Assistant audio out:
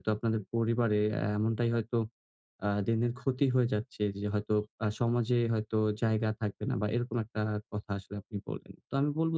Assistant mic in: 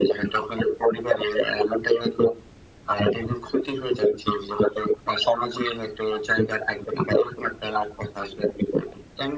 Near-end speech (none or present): none